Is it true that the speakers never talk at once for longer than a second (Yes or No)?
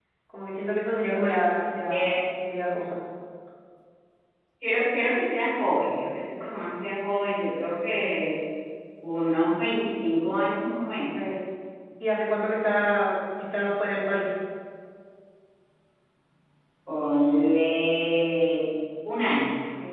Yes